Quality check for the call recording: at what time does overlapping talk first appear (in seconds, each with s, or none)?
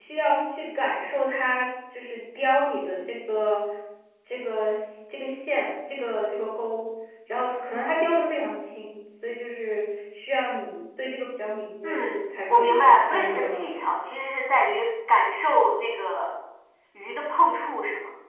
11.8 s